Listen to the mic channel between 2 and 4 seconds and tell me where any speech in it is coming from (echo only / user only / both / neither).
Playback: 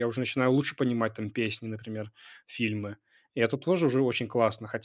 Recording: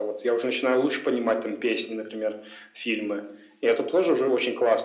echo only